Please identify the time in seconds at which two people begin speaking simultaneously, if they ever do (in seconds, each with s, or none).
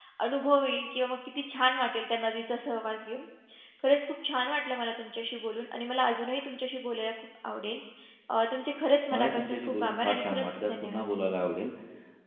9.1 s